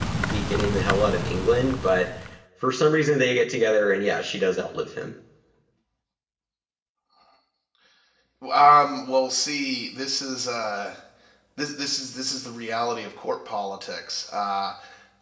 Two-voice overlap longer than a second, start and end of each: none

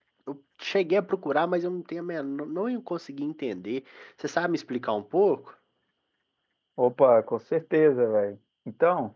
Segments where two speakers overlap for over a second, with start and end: none

